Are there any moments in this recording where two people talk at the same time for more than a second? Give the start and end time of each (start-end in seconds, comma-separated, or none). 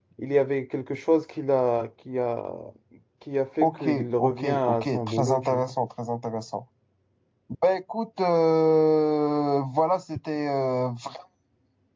3.6-5.7